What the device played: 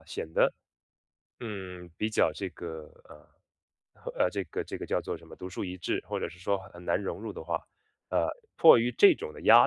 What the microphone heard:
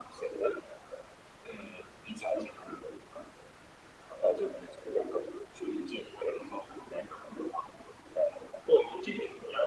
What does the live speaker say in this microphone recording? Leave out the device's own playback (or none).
none